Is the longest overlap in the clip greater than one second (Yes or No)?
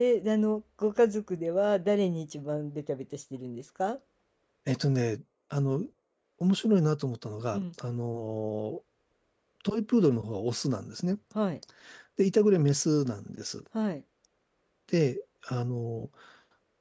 No